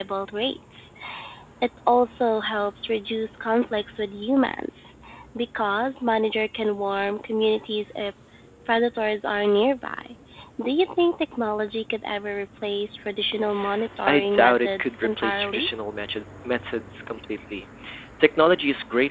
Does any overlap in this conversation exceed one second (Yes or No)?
Yes